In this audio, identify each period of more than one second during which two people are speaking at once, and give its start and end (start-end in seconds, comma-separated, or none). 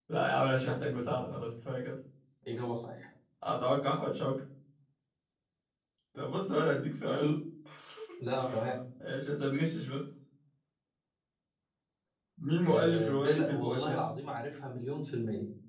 12.6-14.0